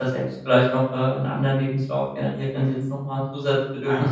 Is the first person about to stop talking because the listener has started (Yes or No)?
Yes